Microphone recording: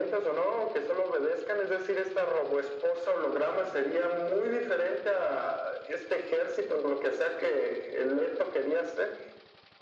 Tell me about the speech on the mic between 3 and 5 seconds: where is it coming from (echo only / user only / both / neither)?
echo only